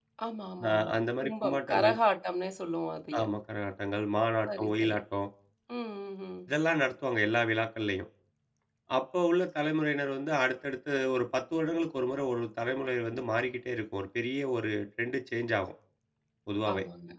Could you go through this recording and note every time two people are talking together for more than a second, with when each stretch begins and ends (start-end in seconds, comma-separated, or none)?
0.7-1.9